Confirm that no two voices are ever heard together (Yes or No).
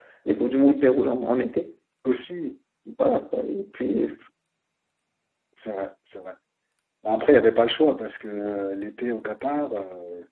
Yes